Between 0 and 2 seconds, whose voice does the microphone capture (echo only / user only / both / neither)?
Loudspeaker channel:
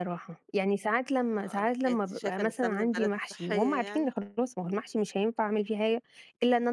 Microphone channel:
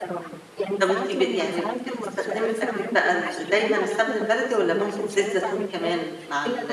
both